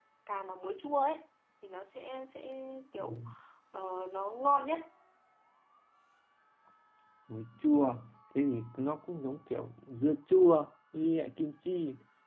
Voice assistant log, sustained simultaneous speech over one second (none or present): none